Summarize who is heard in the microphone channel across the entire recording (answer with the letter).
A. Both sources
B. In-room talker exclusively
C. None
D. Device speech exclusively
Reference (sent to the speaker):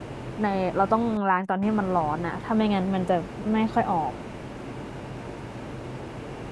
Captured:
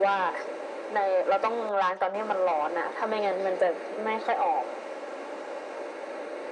D